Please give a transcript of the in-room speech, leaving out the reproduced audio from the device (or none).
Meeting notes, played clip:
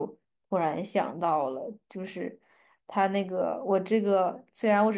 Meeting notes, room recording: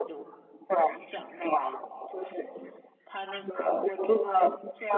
none